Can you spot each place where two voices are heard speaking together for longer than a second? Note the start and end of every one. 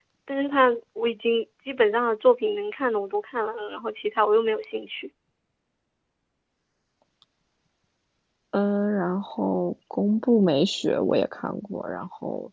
none

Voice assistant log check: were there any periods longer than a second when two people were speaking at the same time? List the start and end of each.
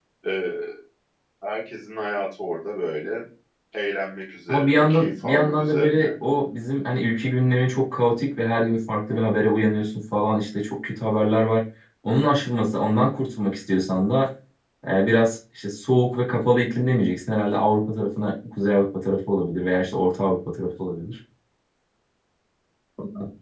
4.5-6.0

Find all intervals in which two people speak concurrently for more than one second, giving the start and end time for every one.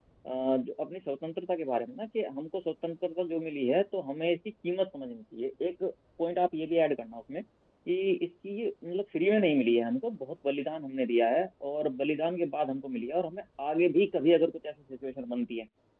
none

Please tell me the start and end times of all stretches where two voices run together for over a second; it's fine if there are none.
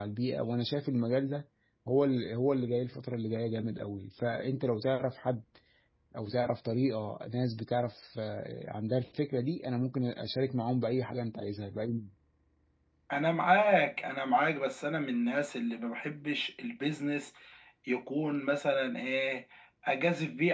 none

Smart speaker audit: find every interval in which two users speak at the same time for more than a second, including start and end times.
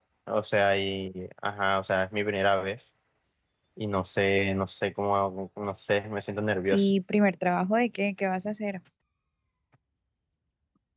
none

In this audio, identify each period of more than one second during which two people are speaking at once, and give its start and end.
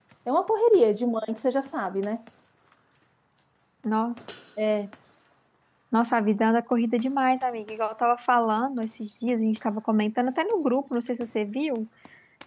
none

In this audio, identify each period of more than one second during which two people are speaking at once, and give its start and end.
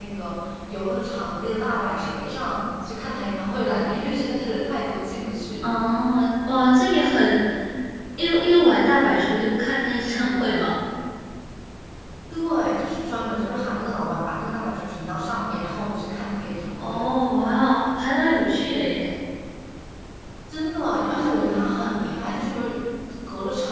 none

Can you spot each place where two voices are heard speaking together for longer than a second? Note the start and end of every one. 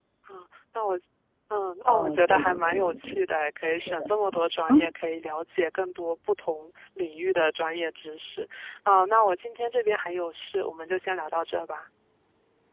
1.8-3.2

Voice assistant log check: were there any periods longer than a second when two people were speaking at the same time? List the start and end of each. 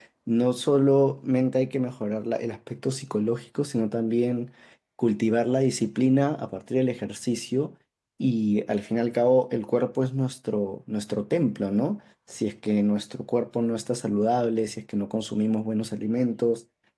none

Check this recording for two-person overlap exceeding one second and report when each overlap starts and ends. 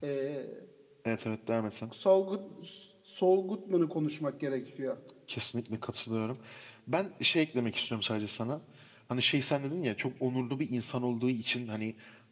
none

